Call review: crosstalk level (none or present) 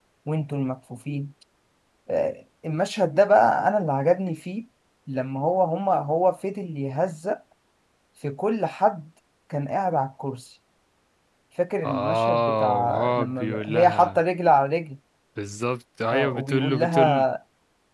present